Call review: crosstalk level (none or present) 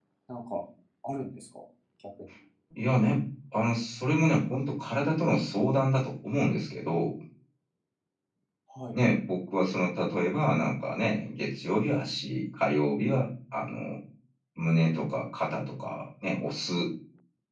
none